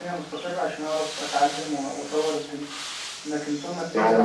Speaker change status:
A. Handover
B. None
A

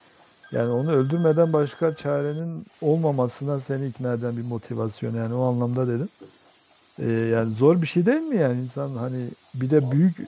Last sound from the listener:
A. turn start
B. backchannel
B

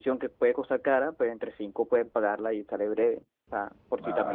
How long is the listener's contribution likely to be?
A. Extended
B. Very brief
A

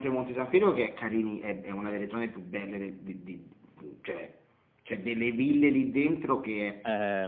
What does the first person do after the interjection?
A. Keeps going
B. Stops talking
B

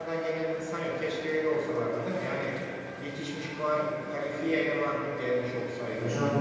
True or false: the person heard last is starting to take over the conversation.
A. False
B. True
B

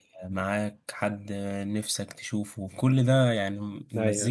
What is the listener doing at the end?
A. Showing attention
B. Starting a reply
A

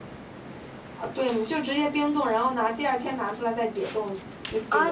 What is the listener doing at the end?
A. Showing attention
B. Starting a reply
B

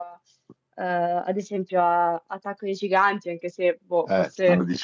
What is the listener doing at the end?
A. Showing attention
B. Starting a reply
B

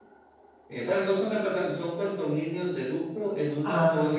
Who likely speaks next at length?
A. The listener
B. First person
B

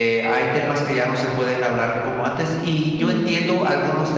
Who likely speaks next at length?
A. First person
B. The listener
A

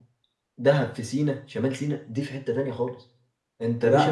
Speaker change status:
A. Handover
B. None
A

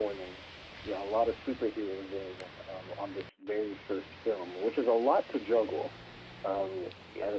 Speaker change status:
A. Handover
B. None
B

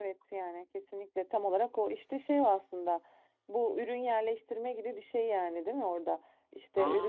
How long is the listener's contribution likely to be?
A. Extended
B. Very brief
B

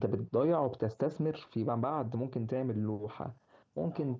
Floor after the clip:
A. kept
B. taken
A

